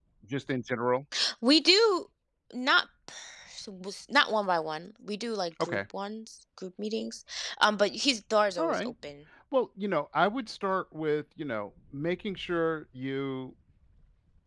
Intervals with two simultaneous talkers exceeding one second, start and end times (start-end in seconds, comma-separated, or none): none